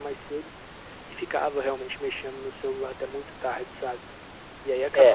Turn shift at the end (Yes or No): Yes